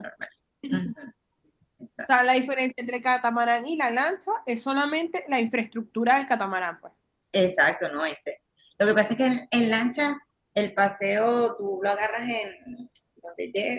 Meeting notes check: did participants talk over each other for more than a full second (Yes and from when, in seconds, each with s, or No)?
No